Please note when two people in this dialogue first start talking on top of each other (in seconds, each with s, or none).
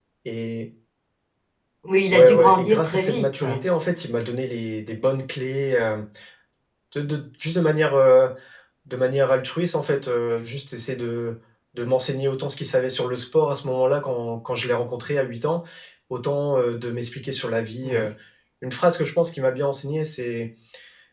2.1 s